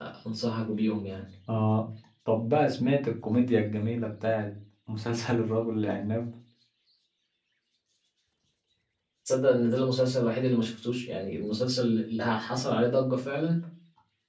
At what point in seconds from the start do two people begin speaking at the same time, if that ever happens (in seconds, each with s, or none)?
none